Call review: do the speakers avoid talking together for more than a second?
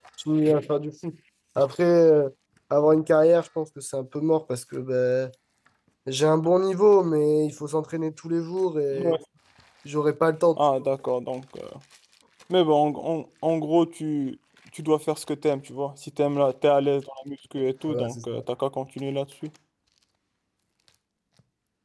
Yes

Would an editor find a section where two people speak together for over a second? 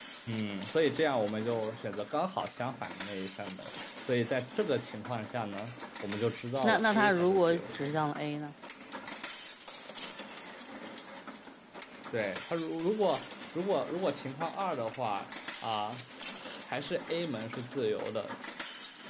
Yes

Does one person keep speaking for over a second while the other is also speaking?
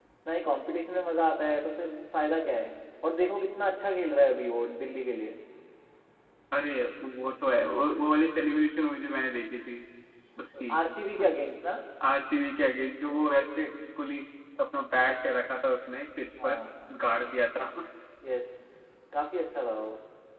No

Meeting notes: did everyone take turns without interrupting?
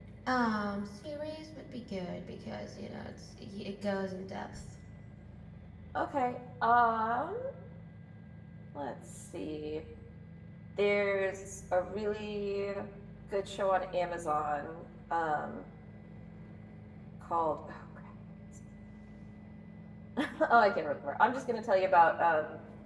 Yes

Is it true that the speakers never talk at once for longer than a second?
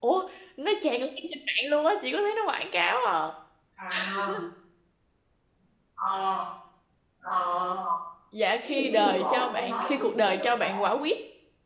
No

